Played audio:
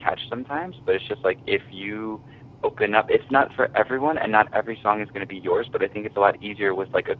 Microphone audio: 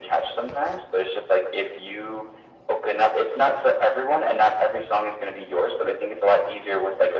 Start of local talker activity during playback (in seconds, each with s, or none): none